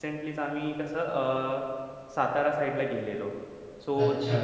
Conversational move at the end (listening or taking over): listening